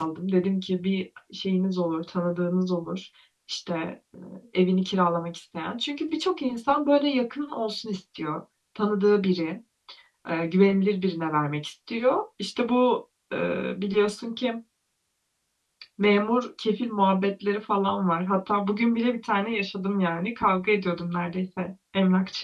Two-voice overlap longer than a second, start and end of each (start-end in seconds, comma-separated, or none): none